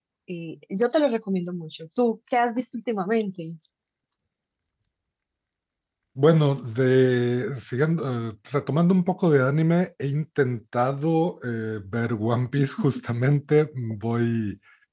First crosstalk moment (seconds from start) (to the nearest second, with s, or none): none